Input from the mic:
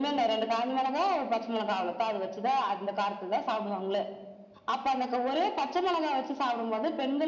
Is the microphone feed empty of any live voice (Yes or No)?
Yes